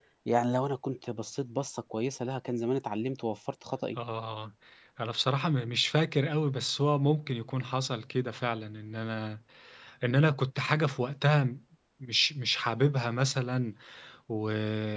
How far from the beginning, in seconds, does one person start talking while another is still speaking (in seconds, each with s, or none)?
none